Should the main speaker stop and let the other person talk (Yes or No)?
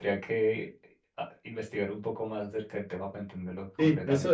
Yes